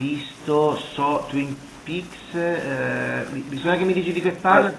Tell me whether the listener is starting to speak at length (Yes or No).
Yes